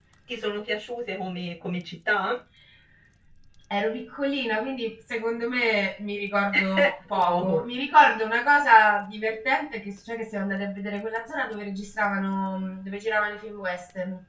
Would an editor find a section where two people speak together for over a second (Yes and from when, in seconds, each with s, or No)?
No